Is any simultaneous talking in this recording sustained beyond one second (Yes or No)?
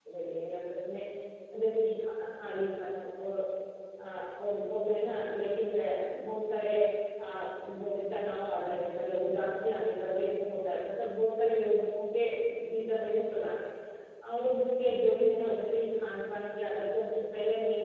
No